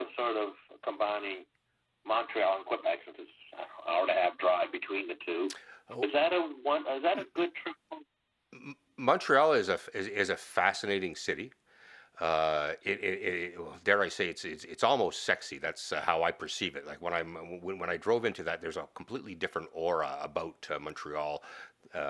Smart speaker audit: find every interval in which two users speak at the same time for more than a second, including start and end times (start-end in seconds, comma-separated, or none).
none